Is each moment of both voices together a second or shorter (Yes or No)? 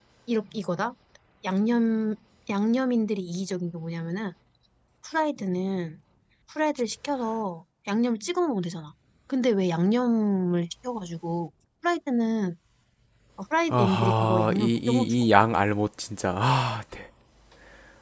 No